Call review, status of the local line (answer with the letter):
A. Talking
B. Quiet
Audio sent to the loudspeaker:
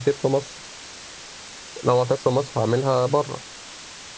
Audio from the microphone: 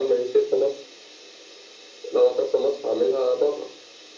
B